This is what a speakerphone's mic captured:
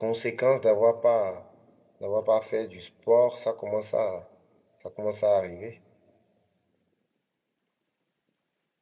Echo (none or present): none